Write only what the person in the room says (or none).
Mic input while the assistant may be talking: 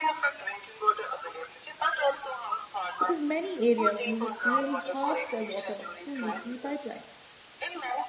because many areas lose nearly half their water through leaky pipelines.